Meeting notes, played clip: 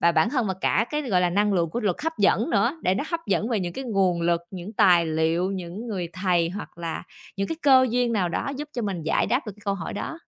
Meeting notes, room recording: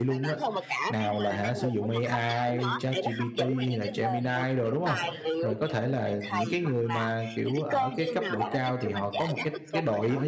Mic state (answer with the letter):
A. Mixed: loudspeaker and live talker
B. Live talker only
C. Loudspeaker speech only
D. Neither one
A